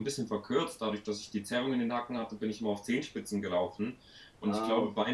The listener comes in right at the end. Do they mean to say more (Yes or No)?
No